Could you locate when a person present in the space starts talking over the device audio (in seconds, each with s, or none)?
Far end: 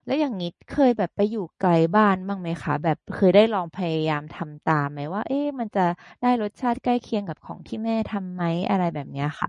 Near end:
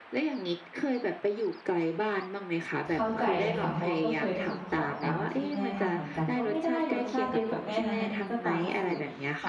2.9 s